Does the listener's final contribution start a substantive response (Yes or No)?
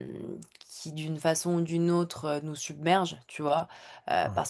No